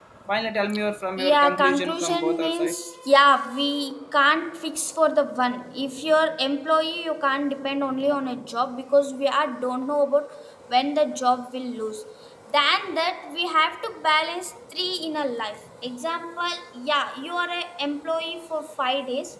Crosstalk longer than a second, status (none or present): present